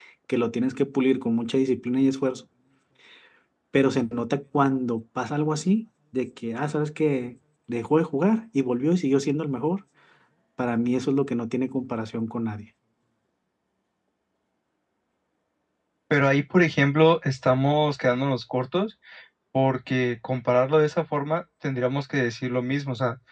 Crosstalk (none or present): none